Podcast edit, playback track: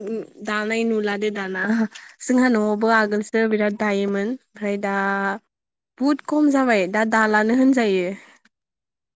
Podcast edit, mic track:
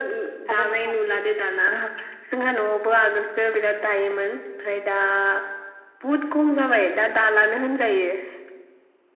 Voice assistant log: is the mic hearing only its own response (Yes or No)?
No